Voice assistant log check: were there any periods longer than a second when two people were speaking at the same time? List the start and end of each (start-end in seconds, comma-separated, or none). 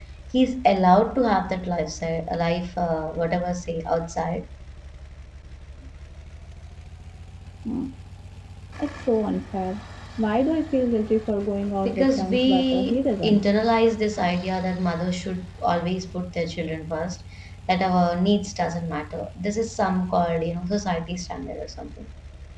11.8-13.4